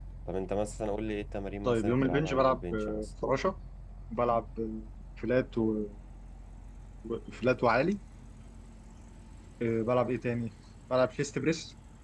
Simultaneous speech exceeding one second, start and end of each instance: 1.6-3.1

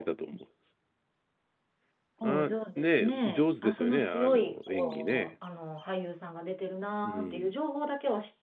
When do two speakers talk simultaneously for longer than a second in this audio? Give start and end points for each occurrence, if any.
2.2-5.3

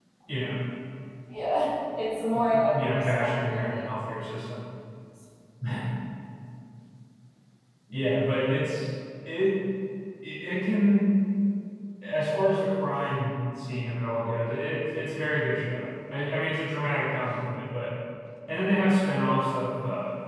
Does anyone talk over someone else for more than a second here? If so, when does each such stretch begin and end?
2.3-3.9

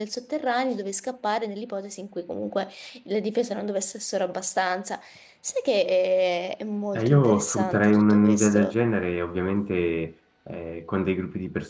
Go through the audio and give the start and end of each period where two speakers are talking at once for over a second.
6.9-8.8

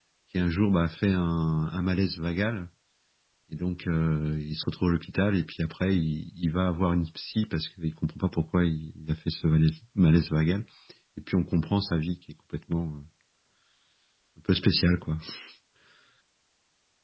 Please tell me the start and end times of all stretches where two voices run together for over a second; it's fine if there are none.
none

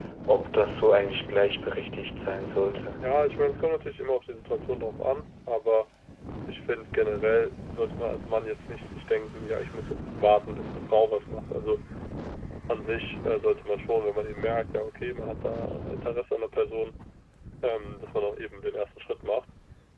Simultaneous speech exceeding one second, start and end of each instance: none

